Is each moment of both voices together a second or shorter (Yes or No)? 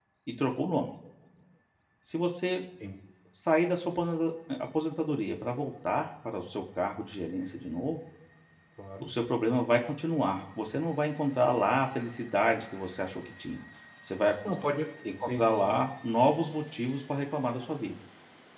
Yes